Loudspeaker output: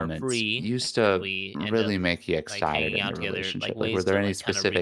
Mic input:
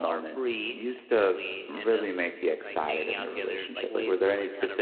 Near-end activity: none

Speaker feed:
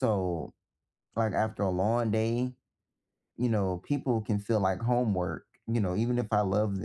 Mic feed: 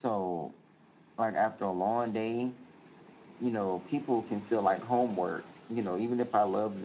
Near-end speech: none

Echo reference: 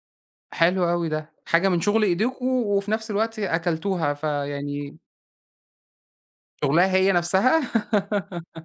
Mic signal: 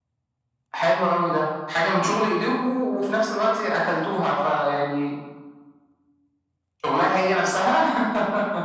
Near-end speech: none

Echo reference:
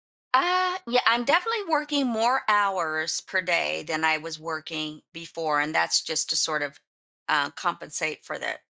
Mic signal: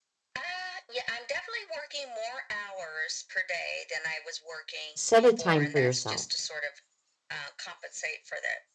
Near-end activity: present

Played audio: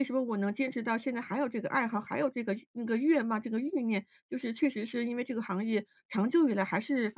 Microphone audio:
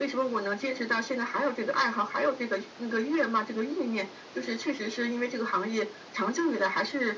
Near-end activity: none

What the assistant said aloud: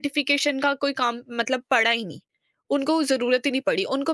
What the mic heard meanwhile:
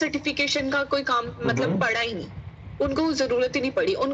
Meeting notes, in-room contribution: present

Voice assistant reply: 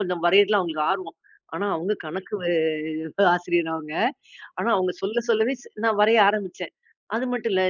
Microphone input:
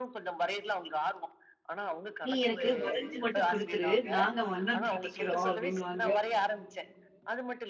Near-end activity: present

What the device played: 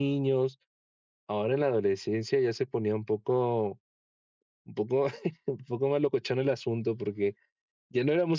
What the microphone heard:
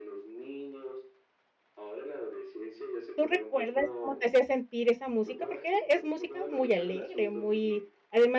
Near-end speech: present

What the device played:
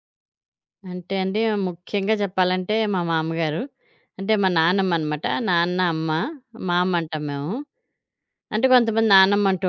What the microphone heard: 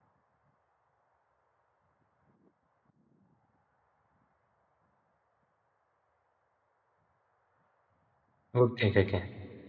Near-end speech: present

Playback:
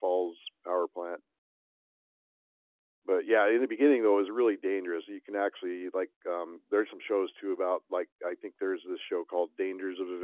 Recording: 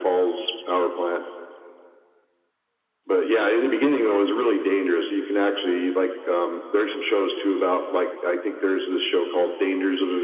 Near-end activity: none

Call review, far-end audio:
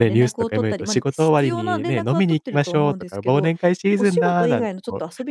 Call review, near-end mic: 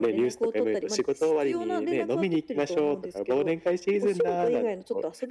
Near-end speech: none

